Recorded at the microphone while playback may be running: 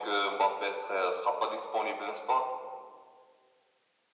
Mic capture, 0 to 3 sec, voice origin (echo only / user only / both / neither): echo only